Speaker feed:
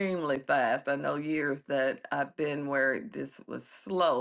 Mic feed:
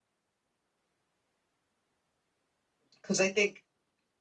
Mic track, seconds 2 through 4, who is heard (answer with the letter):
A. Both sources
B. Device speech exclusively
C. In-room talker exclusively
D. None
C